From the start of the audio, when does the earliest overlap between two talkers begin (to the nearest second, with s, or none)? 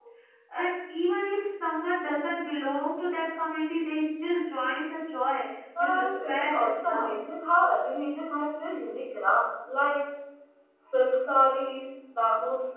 6 s